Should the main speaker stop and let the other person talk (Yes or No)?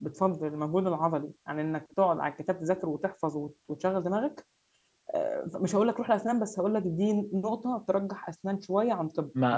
Yes